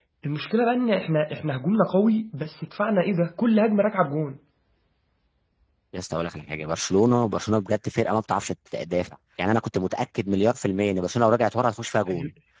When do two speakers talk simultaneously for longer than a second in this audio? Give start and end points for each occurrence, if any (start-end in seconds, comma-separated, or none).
none